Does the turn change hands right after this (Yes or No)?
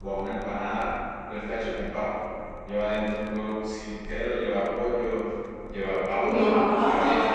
Yes